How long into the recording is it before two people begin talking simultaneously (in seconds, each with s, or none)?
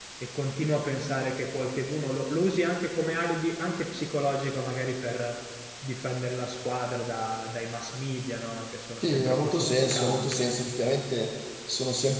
9.0 s